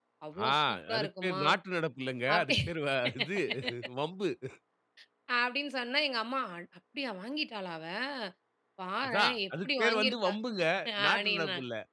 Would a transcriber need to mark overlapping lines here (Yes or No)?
Yes